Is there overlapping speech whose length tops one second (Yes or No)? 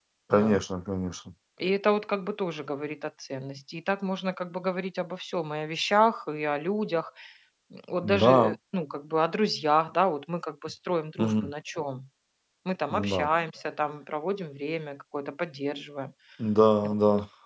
No